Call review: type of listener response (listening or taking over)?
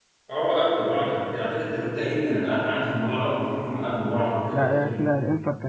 taking over